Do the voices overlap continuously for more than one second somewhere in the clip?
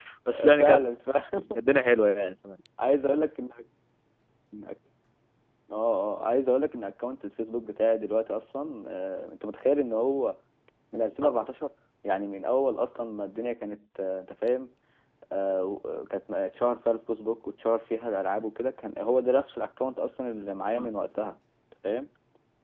No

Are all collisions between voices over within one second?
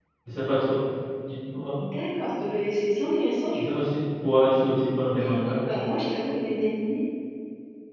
Yes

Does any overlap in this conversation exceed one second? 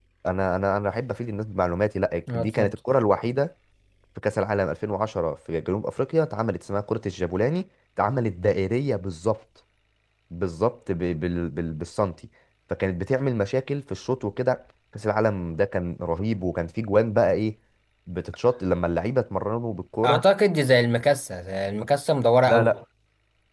No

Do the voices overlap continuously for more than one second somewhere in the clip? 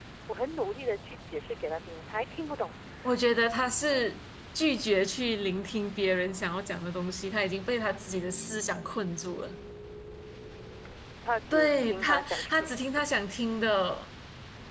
Yes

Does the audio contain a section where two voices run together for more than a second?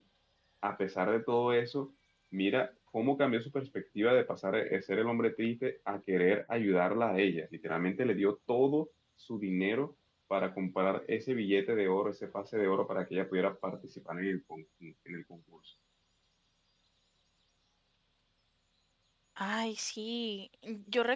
No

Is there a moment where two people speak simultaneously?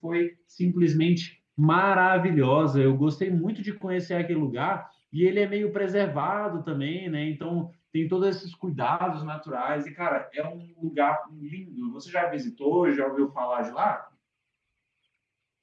No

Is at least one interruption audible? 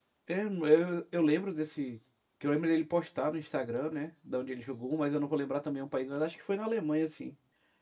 No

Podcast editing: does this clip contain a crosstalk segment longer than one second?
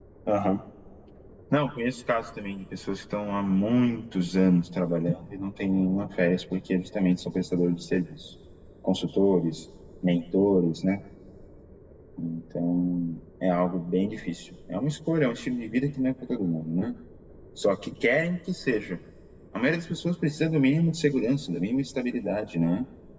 No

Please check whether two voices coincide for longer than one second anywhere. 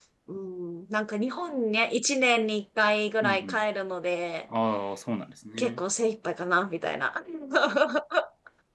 No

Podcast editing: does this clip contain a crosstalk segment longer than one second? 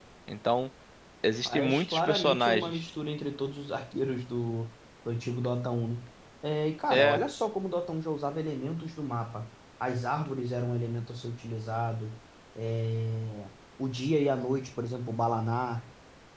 Yes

